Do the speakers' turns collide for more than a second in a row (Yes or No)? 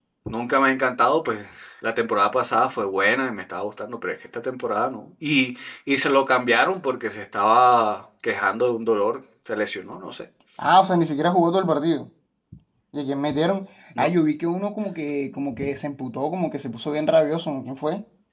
No